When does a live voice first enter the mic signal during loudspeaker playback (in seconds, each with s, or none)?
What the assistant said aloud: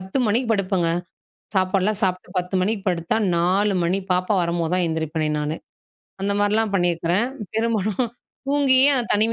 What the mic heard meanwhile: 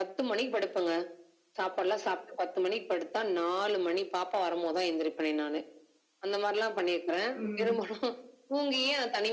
7.3 s